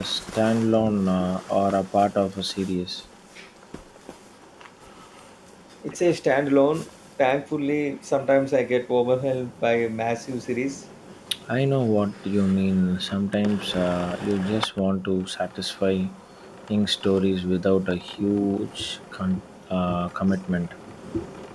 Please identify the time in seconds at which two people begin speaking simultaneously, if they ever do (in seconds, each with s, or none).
none